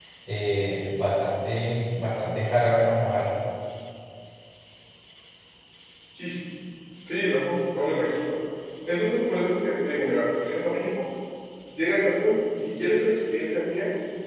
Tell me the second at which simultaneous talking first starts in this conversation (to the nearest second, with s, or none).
none